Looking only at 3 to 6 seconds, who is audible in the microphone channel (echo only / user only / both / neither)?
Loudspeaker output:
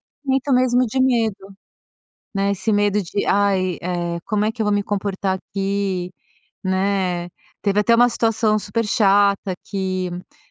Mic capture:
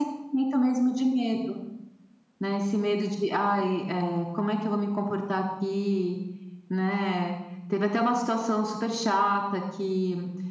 echo only